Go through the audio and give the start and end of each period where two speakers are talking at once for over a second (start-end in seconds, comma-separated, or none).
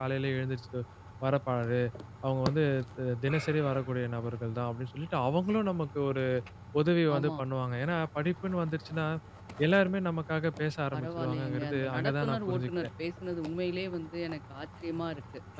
10.9-12.7